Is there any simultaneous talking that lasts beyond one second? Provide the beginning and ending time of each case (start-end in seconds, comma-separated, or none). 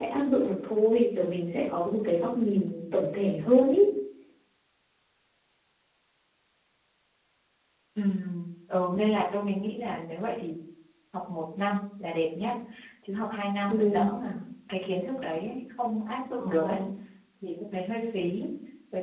none